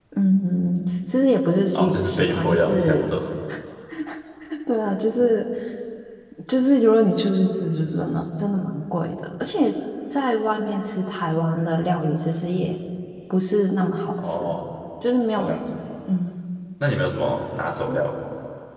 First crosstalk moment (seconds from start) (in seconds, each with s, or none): 1.8 s